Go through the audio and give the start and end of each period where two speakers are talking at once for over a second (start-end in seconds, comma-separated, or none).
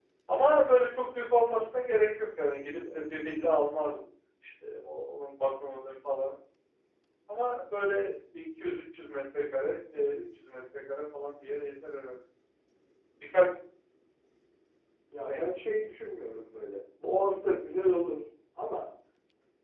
none